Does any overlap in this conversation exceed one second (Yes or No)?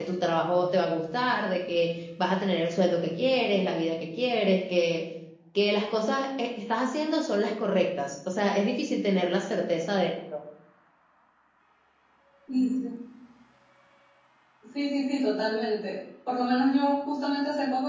No